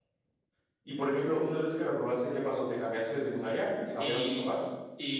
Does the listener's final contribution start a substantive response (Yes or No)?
Yes